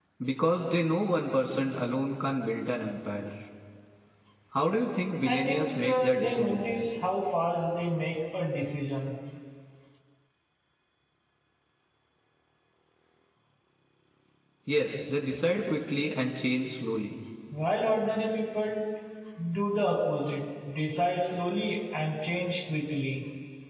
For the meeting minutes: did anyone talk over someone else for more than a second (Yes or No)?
Yes